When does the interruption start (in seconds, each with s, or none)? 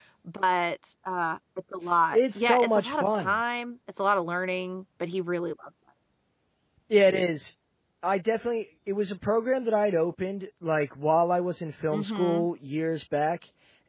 2.1 s